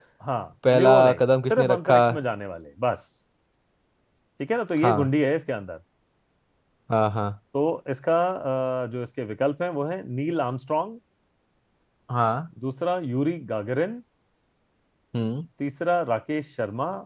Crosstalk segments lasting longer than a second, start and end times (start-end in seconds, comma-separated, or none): 0.7-2.0